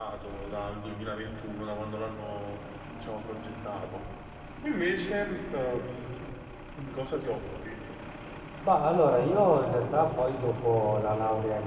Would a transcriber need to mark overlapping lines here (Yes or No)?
No